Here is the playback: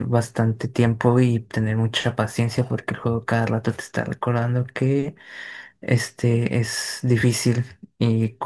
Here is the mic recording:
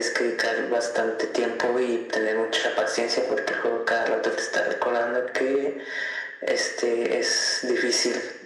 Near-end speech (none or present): none